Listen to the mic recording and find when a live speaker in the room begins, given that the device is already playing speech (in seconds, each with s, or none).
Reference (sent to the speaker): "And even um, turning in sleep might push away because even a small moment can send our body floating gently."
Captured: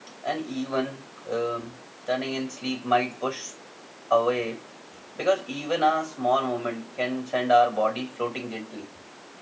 none